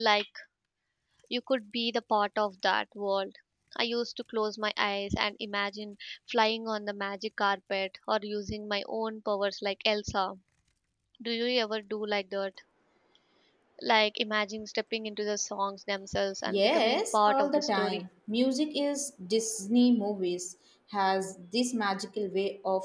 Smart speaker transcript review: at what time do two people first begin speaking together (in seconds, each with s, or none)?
16.5 s